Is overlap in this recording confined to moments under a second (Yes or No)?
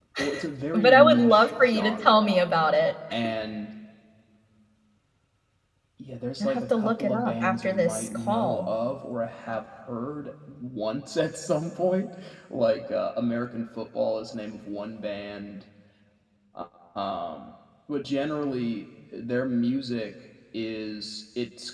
No